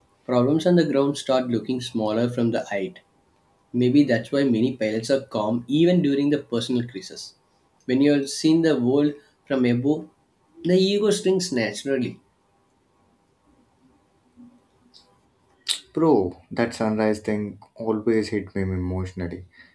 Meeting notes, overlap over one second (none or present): none